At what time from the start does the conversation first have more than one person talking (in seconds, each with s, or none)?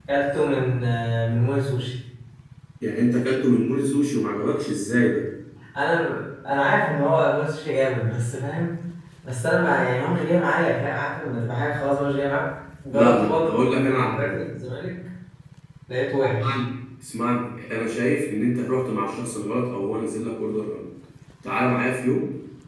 12.9 s